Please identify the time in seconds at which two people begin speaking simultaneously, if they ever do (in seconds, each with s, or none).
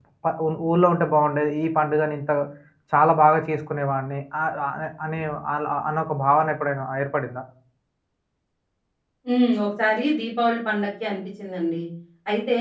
none